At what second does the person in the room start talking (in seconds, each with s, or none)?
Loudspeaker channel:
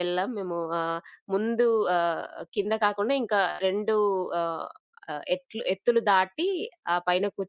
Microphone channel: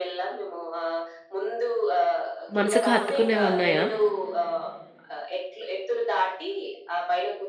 2.6 s